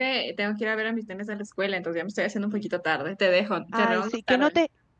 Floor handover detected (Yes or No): Yes